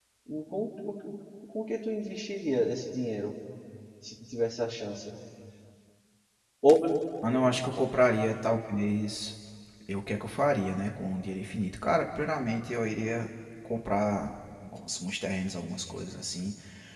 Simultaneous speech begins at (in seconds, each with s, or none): none